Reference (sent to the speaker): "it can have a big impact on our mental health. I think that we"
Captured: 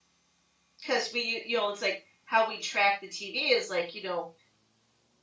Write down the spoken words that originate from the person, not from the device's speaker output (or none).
because we u you know, it's like how we track the TV is like, you know,